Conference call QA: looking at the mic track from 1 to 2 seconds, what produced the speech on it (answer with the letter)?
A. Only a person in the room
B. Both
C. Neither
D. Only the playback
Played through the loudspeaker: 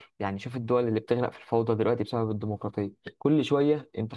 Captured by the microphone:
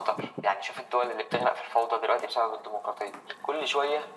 D